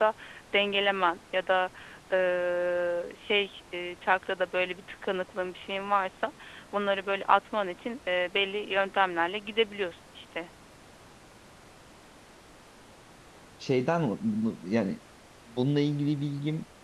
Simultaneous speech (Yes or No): No